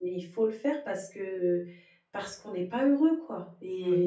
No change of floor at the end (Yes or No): No